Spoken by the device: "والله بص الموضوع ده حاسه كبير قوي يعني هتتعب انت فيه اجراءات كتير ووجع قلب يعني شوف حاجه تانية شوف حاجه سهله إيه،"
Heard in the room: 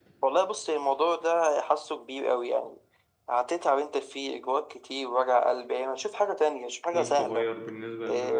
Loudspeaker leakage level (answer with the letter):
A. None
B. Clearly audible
B